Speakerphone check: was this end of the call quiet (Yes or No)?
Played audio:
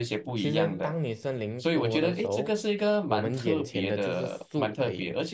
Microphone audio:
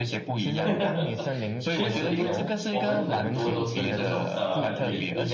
No